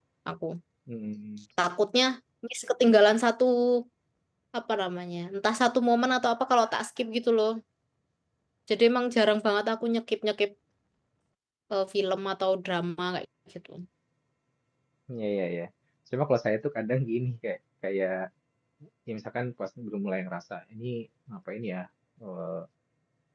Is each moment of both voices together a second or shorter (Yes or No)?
Yes